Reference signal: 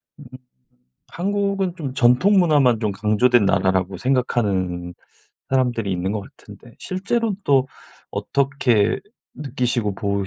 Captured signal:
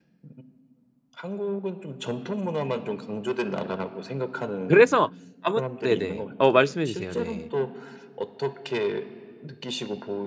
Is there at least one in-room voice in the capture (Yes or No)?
Yes